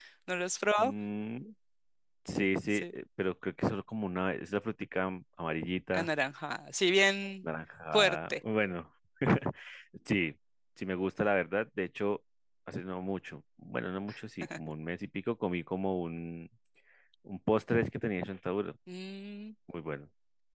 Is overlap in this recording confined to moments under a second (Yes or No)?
Yes